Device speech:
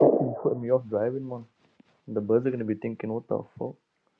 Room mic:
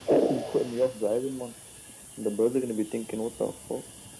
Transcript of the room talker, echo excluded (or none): none